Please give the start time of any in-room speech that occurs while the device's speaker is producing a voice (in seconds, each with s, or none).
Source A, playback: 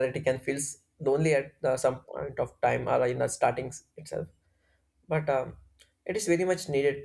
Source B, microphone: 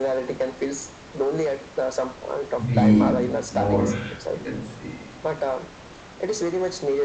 2.6 s